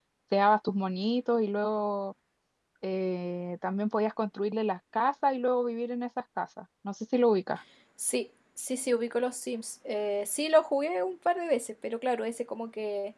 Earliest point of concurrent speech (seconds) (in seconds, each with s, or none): none